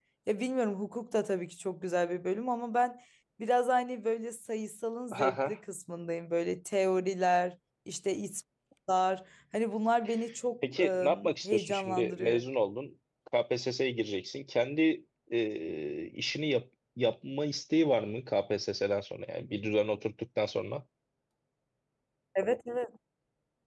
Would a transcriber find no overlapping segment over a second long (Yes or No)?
No